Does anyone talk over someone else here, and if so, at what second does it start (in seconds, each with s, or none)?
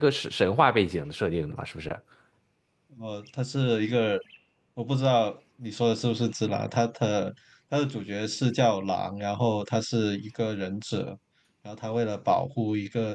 none